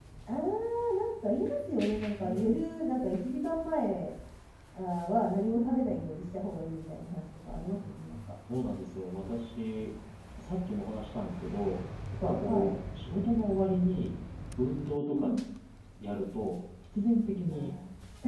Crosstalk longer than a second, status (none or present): none